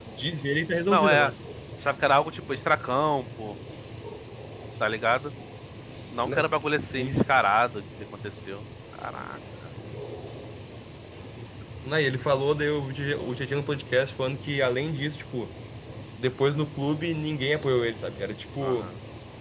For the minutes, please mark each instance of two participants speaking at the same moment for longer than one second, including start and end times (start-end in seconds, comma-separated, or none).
none